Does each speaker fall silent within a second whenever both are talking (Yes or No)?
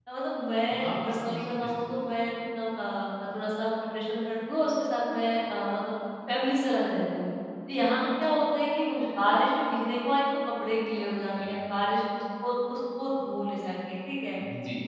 No